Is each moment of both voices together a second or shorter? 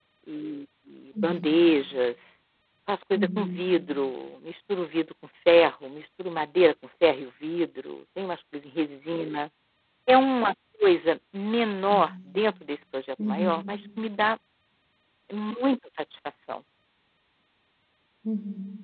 Yes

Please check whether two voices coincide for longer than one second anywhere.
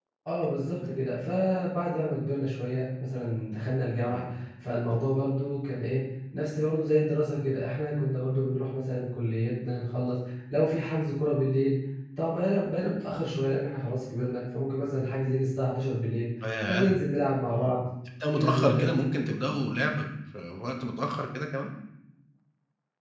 No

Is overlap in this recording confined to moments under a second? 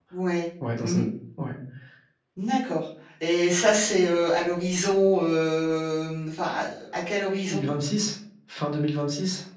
Yes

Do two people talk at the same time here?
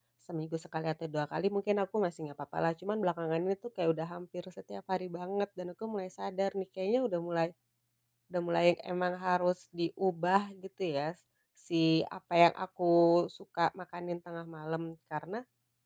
No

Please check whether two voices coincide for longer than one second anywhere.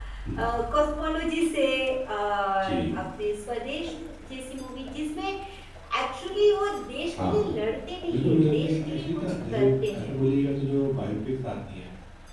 Yes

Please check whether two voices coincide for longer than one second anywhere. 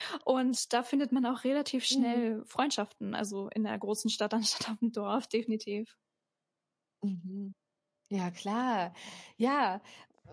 No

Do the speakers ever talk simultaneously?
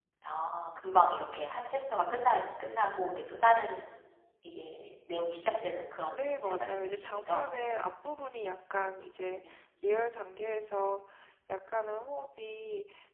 Yes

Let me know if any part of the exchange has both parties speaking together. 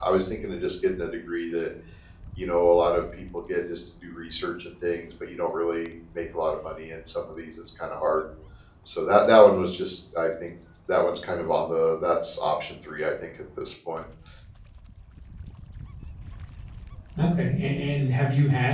No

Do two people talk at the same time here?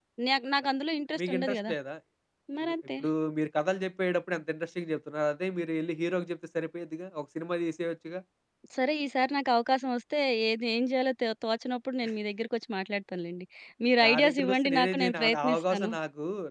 Yes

